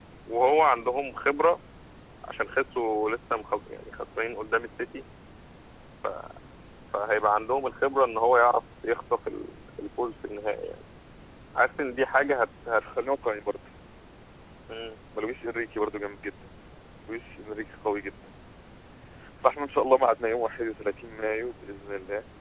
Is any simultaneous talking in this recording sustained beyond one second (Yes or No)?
No